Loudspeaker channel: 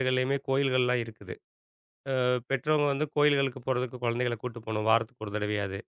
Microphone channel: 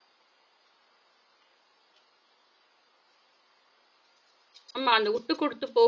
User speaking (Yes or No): Yes